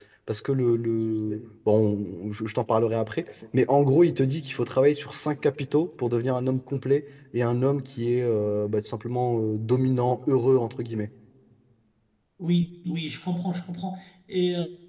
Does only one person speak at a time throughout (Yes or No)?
Yes